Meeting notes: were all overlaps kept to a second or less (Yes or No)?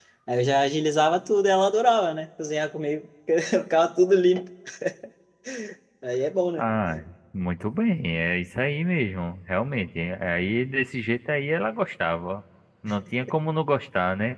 Yes